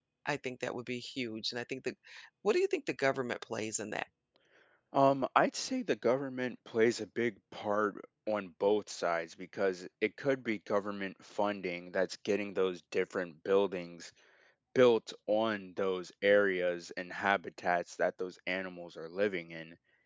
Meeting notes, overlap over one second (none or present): none